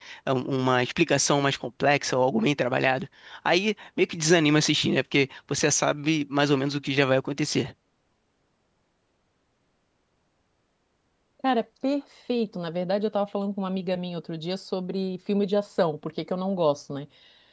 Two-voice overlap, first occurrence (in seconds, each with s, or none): none